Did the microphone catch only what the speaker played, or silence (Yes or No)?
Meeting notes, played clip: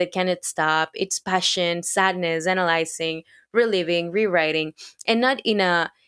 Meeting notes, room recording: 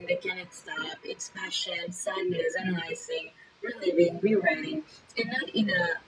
Yes